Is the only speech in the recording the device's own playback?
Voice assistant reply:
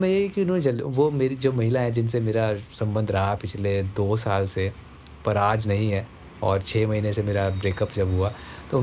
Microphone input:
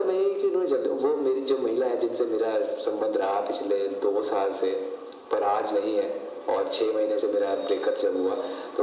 Yes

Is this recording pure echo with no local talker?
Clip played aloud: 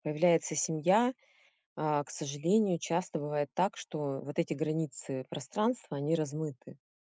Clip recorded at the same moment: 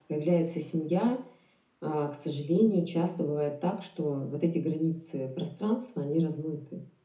Yes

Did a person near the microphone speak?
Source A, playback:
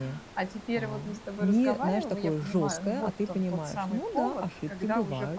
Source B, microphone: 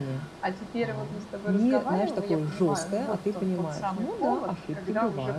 No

